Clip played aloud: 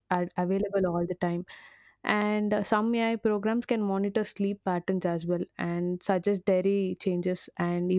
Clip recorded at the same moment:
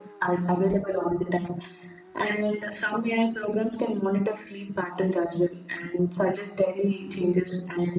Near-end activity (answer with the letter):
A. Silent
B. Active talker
A